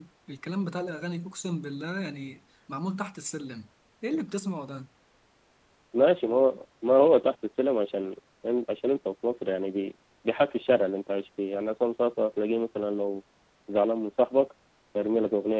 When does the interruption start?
none

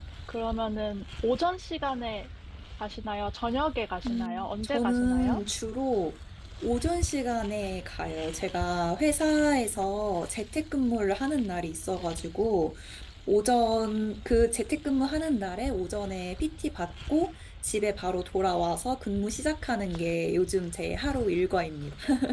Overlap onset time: 4.0 s

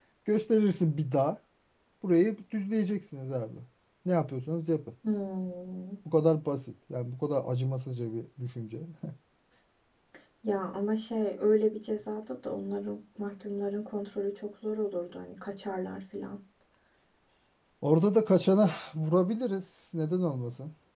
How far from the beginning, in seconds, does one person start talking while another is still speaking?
none

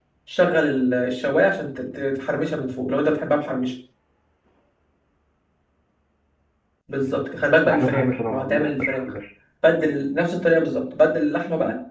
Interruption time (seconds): 7.6 s

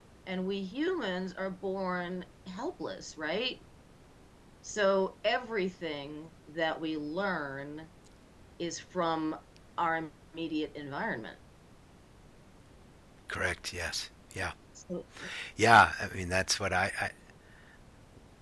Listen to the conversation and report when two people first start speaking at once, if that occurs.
none

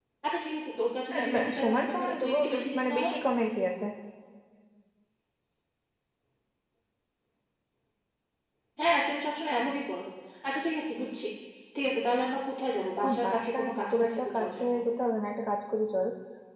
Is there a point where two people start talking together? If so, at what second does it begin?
1.1 s

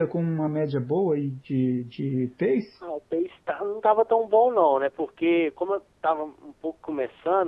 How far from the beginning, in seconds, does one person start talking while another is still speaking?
none

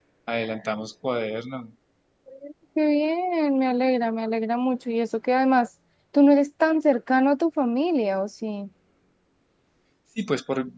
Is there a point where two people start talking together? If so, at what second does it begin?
none

